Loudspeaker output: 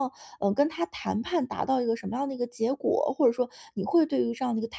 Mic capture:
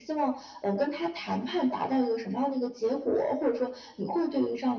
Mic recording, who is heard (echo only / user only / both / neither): echo only